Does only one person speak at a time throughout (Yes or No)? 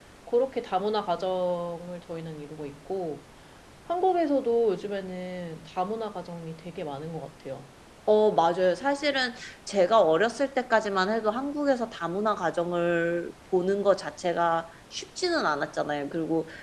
Yes